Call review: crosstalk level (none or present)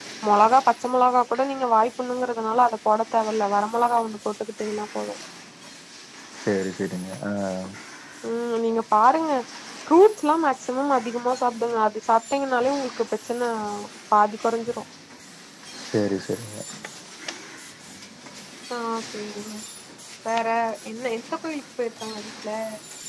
none